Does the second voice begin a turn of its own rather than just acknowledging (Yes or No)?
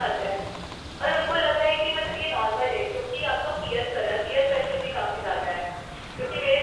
No